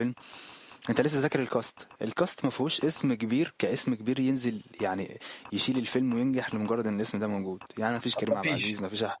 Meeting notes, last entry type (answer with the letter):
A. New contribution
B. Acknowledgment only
B